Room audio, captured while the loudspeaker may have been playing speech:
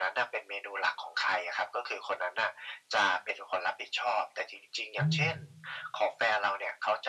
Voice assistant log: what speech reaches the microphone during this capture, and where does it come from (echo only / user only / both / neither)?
both